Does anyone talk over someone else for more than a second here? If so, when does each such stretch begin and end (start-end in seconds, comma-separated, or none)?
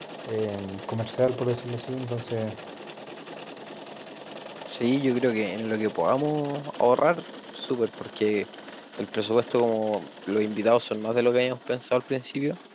none